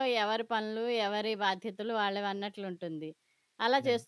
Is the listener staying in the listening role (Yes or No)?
Yes